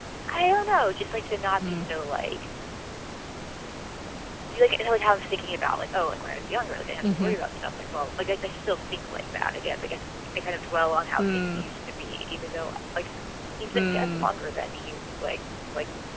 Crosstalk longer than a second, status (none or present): none